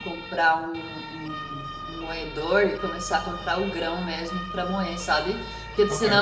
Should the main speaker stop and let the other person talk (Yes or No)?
No